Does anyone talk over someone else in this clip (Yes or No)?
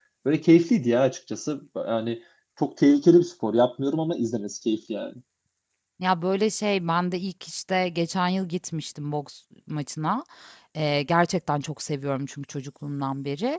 No